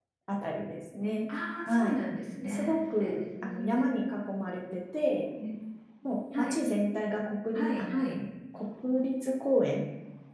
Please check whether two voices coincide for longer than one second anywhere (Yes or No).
Yes